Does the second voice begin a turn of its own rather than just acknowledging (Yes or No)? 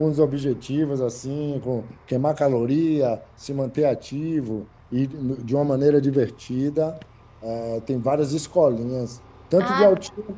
Yes